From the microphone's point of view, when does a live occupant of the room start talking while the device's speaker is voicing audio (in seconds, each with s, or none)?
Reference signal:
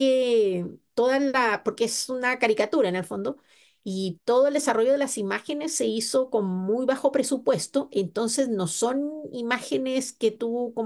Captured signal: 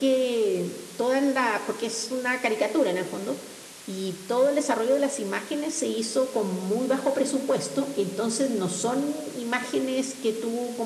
none